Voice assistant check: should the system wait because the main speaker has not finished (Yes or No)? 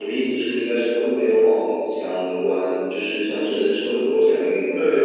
No